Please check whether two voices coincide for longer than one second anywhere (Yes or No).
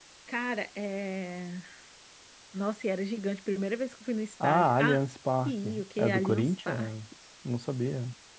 Yes